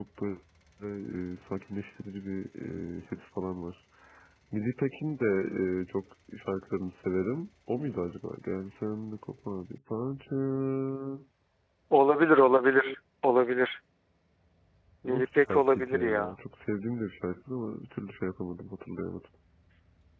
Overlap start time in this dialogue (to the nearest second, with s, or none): 15 s